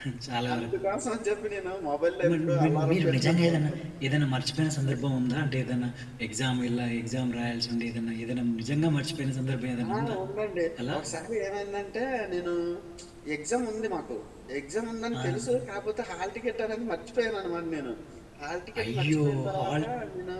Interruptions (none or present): present